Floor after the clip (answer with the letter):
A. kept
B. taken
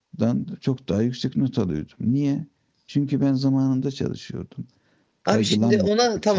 B